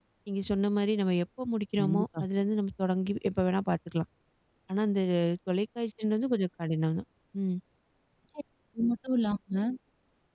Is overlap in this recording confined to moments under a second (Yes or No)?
Yes